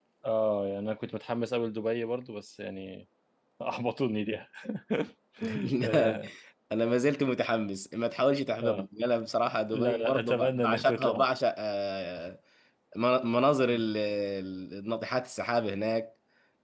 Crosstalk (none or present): present